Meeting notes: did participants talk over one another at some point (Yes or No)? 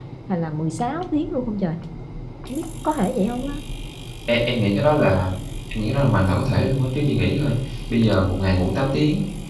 No